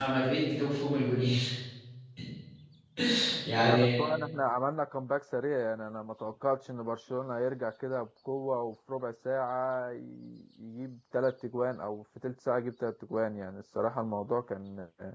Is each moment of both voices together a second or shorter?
Yes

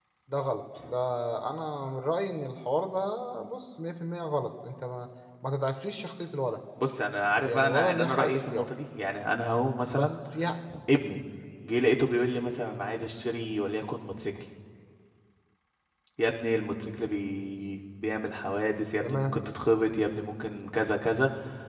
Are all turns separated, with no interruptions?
No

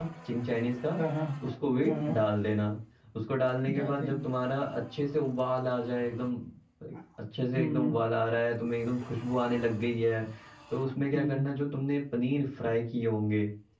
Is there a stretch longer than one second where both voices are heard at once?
No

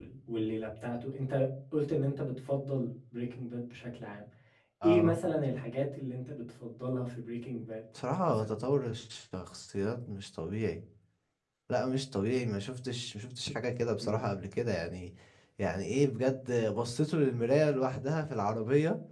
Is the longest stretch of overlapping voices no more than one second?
Yes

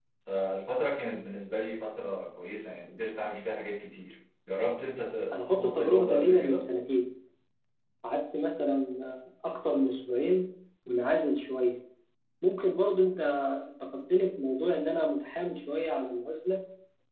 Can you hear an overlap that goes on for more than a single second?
Yes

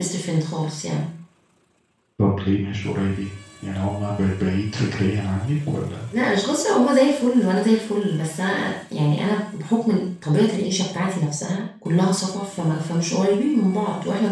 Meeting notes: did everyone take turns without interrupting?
Yes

